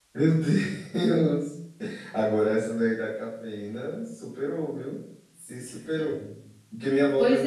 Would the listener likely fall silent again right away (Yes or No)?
Yes